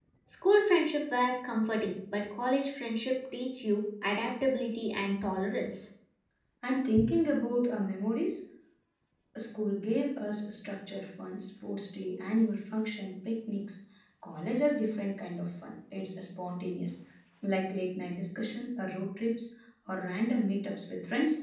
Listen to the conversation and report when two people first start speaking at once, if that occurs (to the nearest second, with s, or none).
none